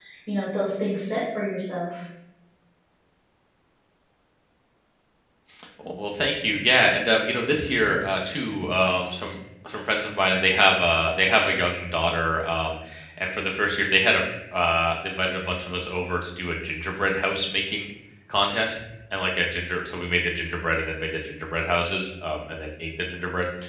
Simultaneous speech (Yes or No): No